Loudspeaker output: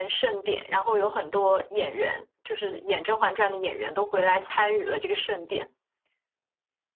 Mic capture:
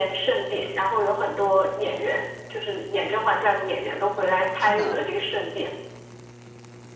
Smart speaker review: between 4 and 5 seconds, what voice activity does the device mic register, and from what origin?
both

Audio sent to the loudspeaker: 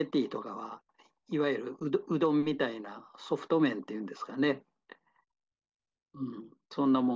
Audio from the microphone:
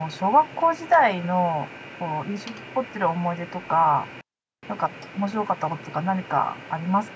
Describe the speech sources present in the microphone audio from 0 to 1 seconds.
user only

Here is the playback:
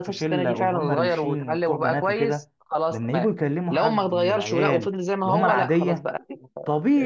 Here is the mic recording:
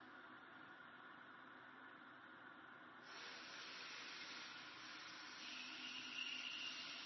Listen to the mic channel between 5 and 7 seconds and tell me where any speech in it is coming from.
neither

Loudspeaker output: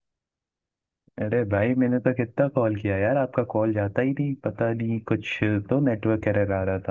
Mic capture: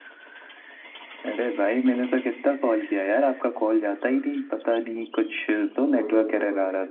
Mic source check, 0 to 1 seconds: neither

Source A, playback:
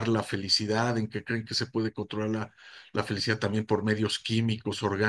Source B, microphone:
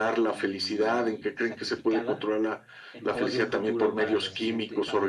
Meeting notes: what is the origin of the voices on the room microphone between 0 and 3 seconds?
both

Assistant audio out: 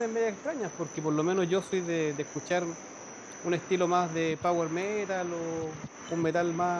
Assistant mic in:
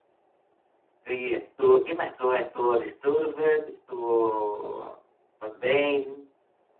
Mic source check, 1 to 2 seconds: user only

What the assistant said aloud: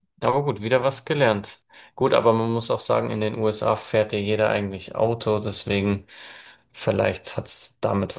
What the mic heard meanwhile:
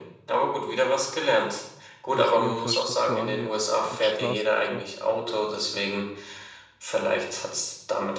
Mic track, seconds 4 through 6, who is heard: both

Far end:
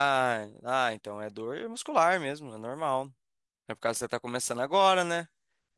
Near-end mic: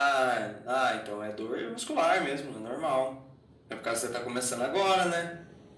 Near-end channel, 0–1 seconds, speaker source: echo only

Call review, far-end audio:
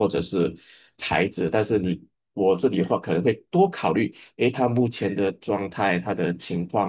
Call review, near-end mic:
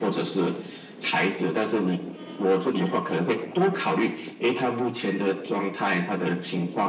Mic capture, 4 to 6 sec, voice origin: echo only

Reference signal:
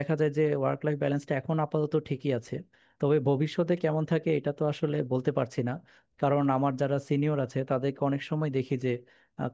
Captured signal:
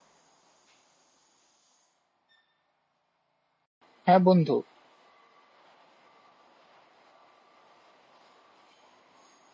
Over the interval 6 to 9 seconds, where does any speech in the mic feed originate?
neither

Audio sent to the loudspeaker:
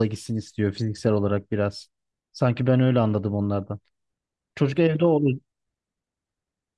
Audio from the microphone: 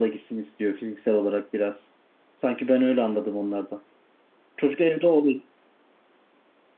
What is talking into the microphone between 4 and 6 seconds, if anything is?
echo only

